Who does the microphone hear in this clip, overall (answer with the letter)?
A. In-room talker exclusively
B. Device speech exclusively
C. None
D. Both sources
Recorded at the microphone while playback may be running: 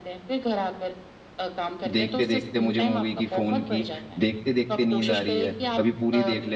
D